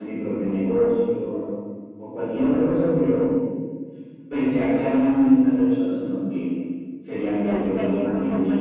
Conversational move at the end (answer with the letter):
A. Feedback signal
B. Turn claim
B